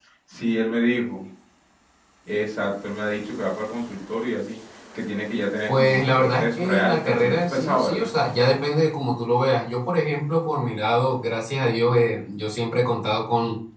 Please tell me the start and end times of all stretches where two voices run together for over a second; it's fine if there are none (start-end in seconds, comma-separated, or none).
5.7-8.1